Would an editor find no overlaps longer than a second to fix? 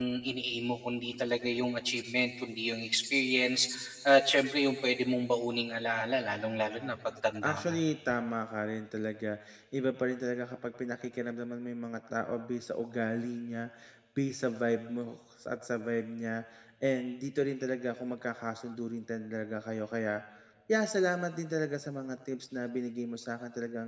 Yes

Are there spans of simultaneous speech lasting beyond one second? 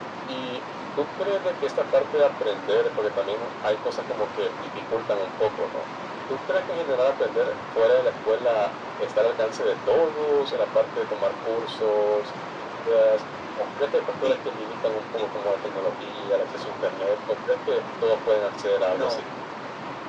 No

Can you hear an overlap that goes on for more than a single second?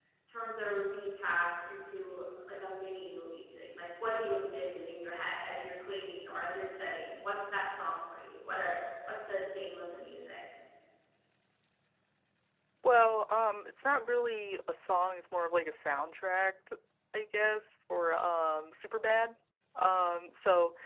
No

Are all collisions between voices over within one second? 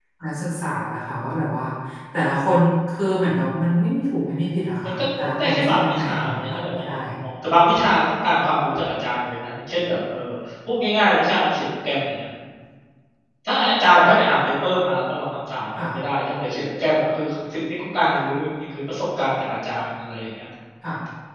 No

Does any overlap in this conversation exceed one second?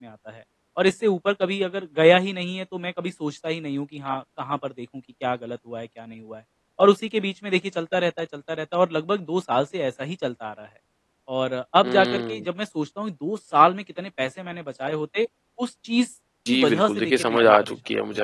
Yes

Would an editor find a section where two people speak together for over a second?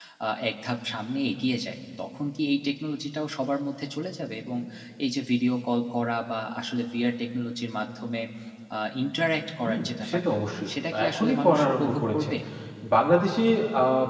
Yes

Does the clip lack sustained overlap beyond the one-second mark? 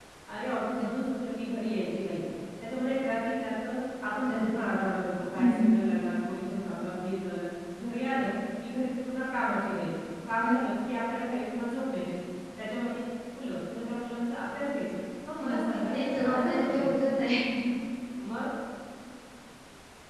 No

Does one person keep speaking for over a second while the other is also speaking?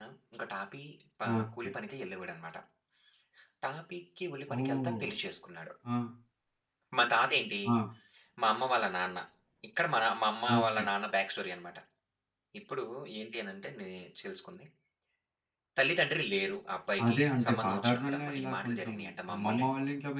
Yes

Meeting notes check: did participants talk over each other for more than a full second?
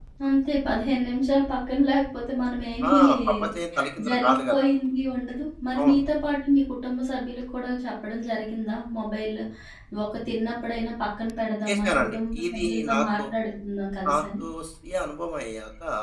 Yes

